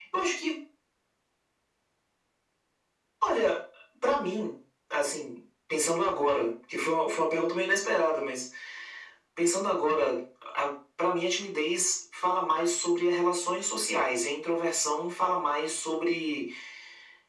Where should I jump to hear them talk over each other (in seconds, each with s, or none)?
none